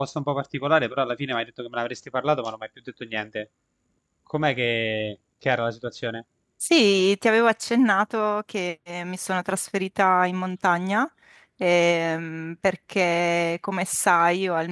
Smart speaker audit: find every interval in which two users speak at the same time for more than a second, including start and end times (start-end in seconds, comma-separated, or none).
none